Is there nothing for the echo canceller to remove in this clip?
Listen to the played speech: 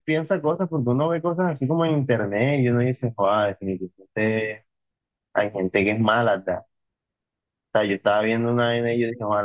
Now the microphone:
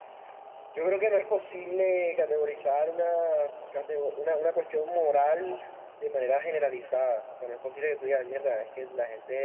Yes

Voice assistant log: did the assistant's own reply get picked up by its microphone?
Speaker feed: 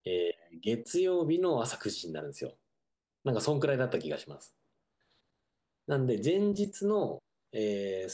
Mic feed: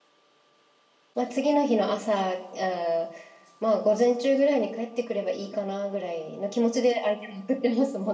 No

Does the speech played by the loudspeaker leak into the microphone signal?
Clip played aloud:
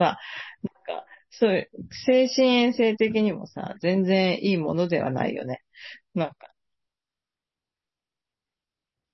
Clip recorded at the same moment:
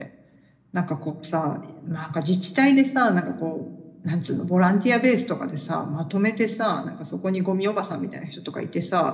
No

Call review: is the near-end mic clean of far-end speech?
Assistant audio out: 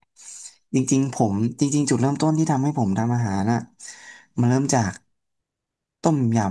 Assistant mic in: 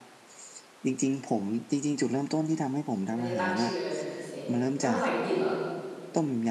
No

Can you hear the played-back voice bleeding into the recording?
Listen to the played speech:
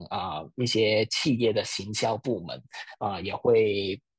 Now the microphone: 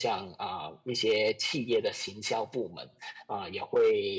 Yes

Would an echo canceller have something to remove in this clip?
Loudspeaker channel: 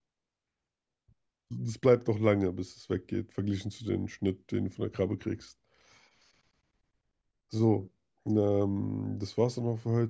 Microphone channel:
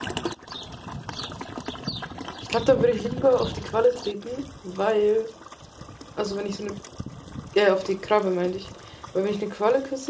No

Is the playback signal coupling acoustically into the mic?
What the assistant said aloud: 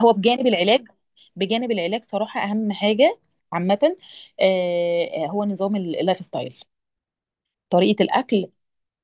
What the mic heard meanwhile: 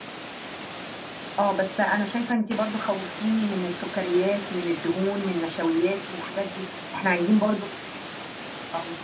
No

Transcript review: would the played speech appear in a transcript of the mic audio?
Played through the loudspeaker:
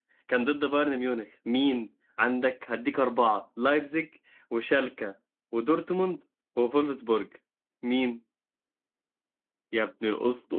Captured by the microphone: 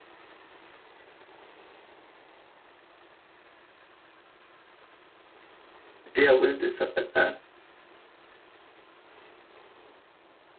No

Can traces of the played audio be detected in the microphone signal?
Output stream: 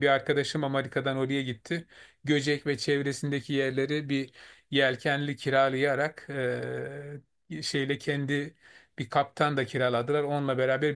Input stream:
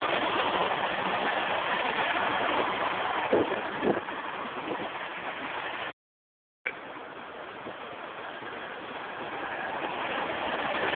No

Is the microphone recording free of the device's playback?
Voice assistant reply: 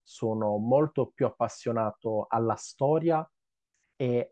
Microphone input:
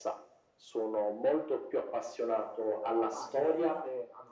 No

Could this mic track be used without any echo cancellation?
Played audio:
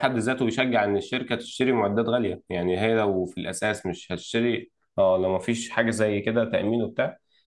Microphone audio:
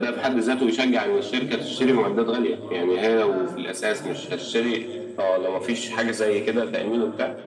No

